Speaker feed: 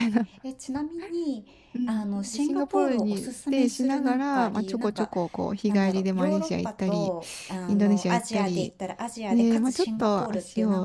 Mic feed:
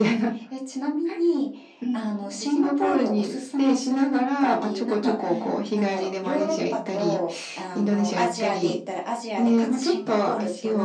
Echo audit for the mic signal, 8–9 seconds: echo only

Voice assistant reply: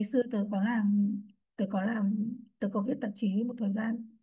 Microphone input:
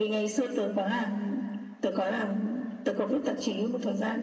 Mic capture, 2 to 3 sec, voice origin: echo only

